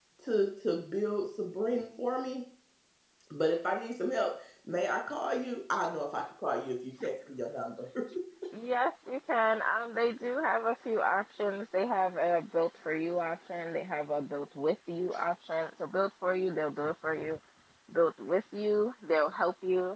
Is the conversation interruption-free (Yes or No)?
Yes